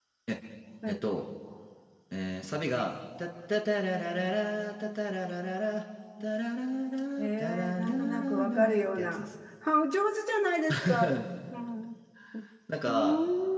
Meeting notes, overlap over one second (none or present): present